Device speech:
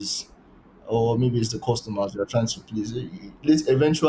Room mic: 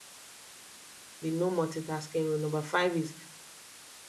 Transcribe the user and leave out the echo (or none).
The no multitasking rule. Number five is